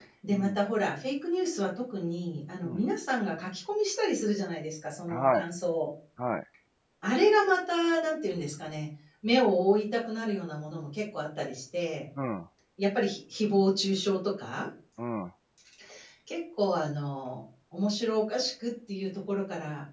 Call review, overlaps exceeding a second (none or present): none